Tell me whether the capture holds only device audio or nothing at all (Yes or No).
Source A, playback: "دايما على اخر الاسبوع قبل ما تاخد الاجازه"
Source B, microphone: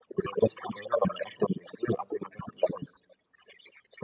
Yes